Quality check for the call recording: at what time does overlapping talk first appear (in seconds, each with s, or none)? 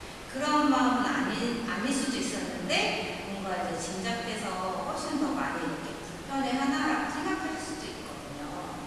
none